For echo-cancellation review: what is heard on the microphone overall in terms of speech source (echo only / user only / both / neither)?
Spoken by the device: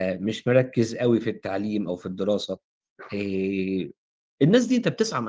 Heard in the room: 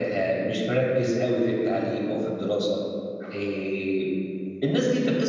echo only